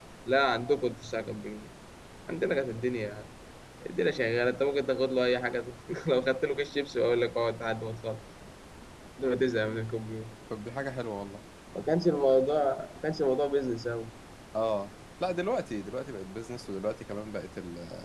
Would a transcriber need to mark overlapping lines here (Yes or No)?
No